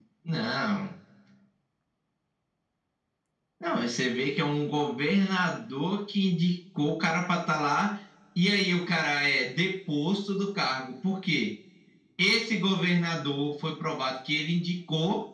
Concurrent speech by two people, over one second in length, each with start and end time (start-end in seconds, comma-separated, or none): none